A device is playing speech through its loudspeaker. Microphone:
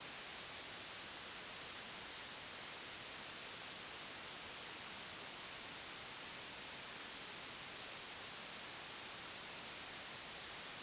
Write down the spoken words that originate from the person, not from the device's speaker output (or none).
none